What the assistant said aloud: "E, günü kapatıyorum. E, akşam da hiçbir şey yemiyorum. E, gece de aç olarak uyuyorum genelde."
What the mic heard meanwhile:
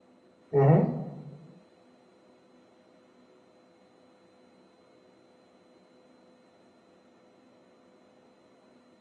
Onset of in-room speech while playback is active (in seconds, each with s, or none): 0.5 s